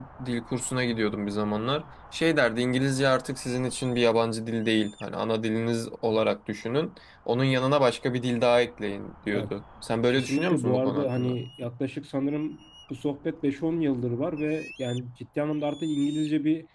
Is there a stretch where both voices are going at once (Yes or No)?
Yes